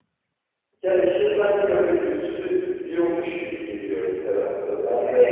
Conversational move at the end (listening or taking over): taking over